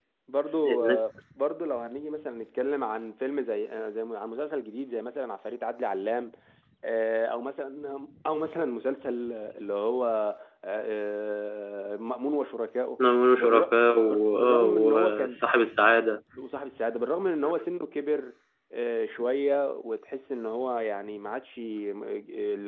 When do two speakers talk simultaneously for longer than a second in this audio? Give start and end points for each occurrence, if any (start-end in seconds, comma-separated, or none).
13.4-15.4